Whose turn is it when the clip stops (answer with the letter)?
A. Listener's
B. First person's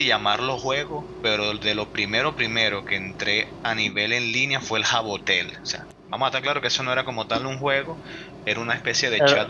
B